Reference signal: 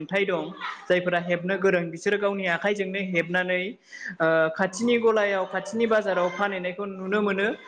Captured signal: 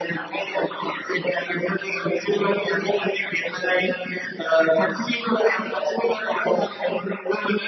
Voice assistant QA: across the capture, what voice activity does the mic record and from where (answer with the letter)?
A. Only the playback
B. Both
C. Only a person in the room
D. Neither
A